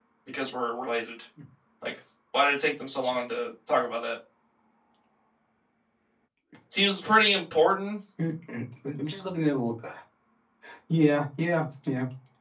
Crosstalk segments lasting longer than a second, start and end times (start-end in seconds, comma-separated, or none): none